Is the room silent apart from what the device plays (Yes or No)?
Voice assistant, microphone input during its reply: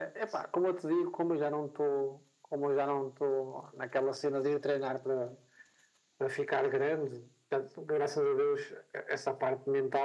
Yes